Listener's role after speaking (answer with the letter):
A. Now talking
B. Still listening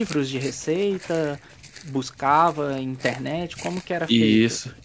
A